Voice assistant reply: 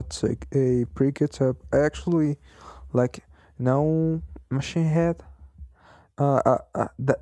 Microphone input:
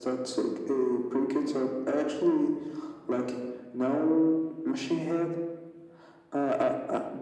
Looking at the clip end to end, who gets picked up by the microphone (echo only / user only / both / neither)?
echo only